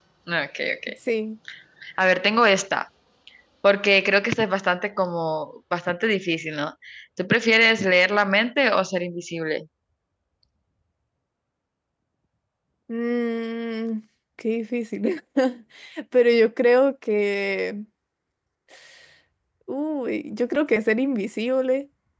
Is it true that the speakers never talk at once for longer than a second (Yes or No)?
Yes